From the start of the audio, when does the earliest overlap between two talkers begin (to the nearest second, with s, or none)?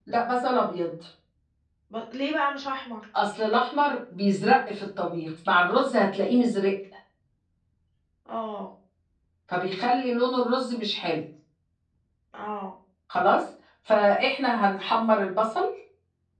none